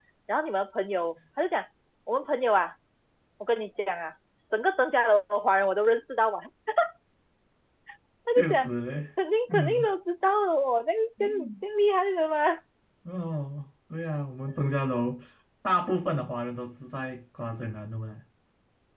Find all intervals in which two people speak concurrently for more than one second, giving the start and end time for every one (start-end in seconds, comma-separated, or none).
none